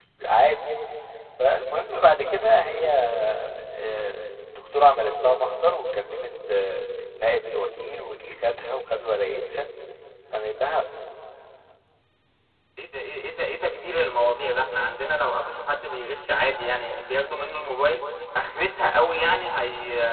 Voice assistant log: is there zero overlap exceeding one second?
Yes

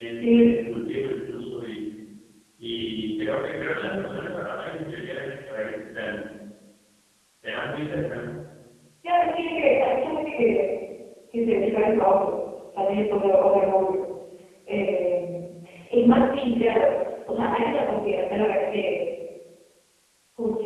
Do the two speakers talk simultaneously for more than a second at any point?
No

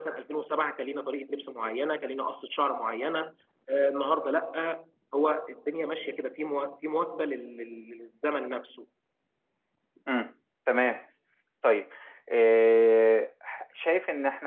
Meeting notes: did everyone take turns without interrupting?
Yes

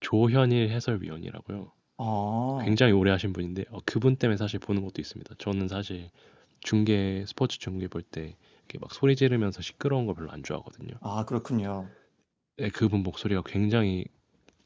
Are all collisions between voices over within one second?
Yes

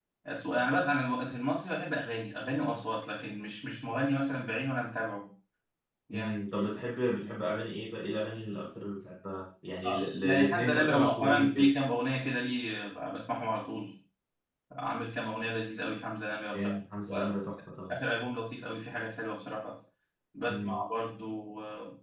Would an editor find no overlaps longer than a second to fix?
No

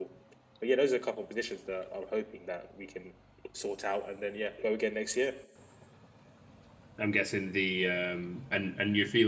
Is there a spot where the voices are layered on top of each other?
No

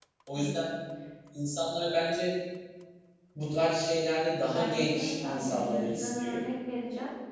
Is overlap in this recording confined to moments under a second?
No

